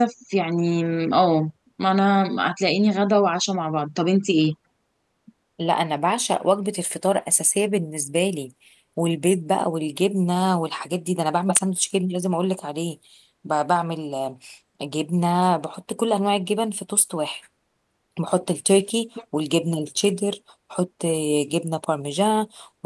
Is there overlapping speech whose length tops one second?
No

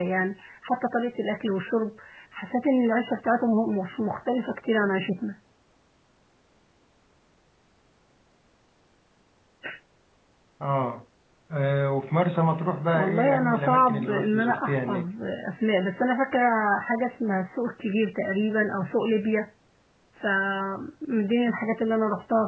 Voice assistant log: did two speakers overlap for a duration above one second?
Yes, from 12.9 s

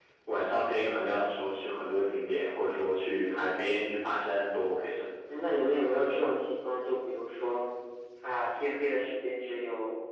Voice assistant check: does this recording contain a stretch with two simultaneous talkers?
No

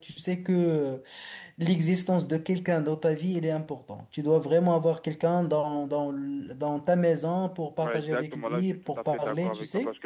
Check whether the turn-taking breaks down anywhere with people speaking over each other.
Yes, from 7.8 s

